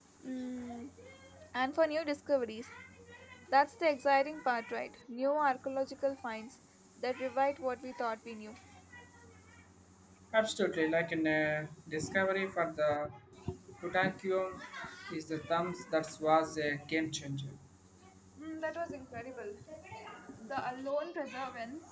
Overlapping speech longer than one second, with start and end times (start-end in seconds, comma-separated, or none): none